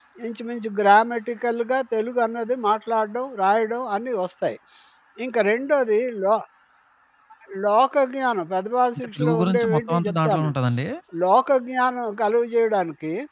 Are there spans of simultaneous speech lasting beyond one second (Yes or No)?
Yes